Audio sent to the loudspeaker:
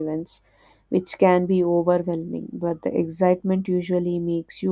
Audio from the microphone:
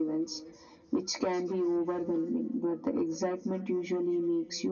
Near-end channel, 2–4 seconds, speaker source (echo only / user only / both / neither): echo only